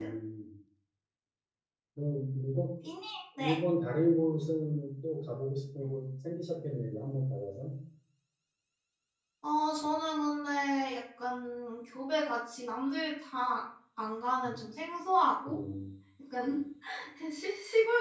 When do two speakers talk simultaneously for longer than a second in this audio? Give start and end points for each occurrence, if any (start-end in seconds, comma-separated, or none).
none